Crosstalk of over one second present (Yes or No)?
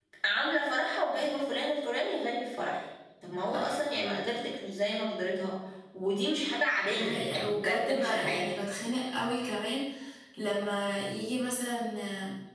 Yes